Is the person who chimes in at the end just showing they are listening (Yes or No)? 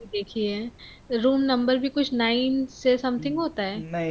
No